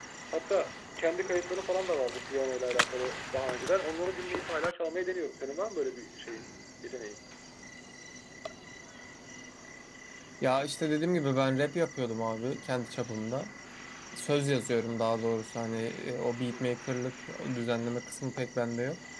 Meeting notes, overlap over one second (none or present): none